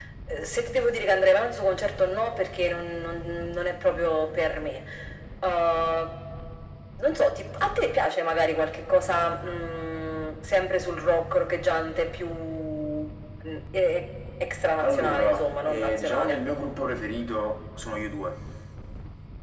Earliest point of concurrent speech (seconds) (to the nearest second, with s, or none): 15 s